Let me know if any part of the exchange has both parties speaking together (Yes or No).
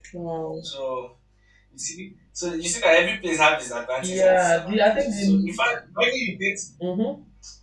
Yes